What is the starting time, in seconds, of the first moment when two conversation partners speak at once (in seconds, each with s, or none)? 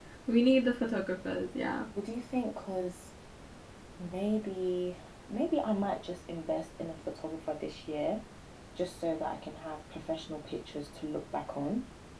none